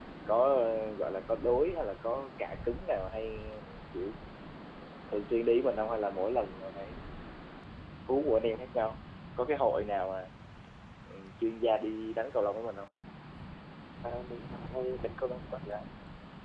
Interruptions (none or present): none